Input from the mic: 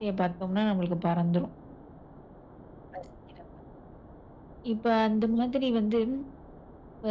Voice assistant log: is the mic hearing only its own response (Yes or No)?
Yes